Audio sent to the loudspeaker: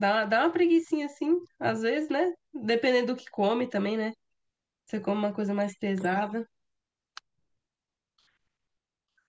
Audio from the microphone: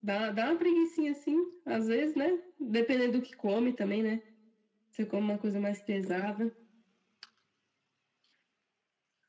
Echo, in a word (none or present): present